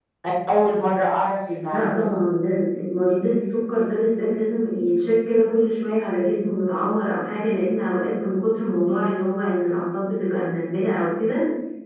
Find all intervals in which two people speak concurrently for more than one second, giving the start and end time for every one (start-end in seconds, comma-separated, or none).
none